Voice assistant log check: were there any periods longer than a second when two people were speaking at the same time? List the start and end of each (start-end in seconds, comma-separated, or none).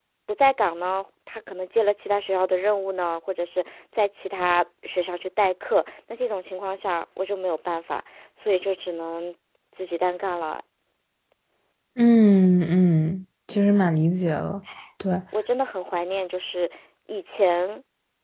none